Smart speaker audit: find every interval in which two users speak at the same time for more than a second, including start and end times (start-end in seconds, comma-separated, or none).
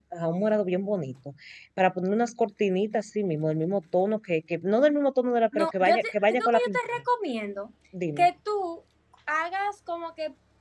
5.5-6.8